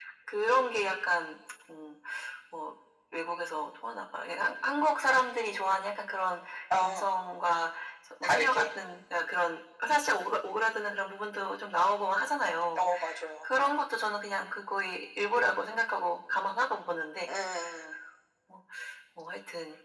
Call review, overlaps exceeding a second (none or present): none